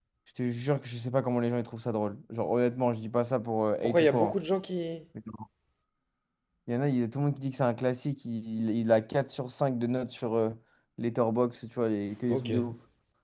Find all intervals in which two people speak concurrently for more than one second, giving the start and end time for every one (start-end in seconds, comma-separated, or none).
none